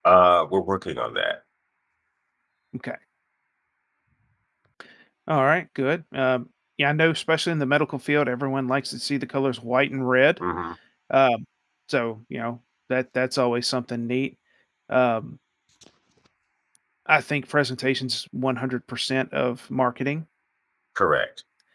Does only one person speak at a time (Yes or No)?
Yes